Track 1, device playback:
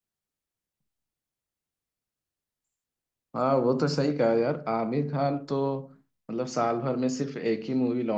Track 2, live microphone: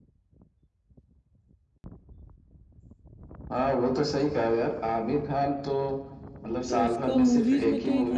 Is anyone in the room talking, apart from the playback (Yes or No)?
Yes